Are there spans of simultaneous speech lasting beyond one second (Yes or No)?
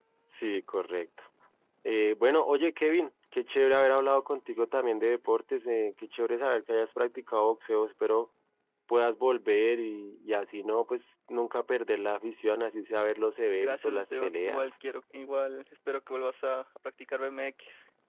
Yes